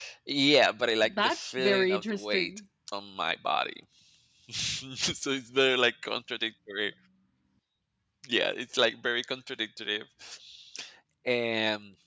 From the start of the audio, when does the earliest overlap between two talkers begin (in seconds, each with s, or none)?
1.2 s